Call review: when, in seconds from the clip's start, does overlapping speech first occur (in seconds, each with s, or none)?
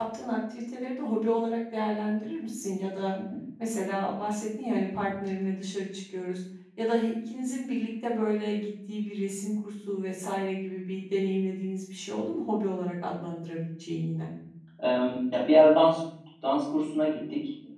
none